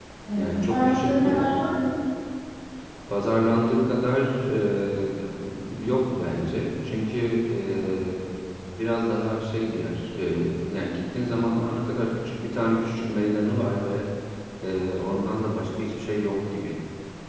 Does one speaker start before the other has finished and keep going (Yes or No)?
Yes